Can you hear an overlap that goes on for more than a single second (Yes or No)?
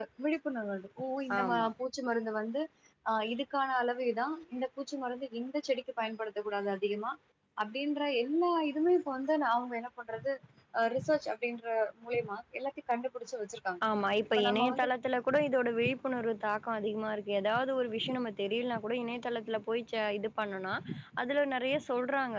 No